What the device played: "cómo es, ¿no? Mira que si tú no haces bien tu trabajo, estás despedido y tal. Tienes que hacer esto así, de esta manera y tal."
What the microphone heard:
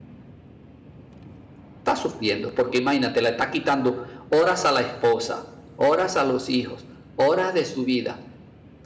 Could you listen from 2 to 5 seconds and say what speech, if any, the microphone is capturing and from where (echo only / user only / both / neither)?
user only